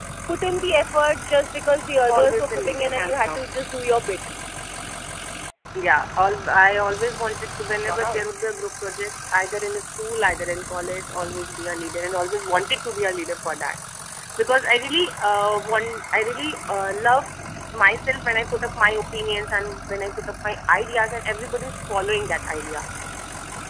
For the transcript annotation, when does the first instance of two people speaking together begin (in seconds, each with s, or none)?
2.1 s